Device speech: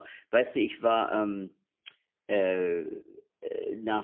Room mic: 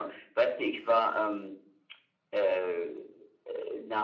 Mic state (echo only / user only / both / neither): echo only